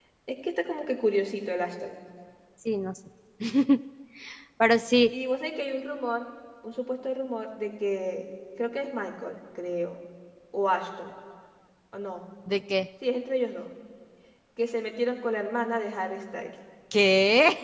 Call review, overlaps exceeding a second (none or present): none